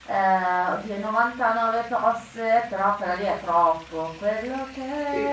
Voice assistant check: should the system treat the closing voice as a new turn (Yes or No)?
No